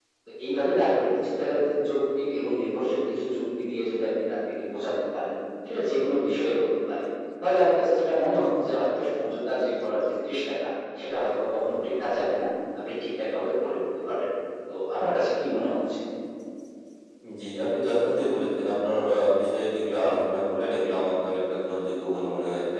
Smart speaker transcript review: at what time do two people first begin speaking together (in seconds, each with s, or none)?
none